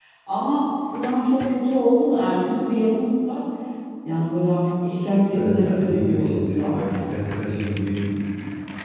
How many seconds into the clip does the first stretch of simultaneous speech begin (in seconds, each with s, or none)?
5.3 s